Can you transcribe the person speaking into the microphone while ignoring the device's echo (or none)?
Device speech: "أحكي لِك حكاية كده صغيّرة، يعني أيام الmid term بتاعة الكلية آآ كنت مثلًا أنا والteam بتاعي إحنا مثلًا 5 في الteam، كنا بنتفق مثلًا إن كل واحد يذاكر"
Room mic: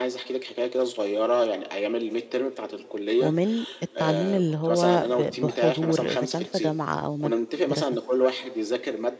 ومن التعليم اللي هو ب بحضور، إذا كان في جامعة أو مدرسة؟